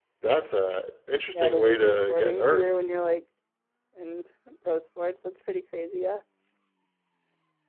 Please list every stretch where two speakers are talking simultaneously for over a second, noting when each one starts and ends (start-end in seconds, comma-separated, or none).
1.3-2.7